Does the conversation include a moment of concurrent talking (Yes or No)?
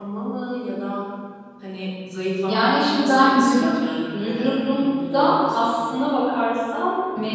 Yes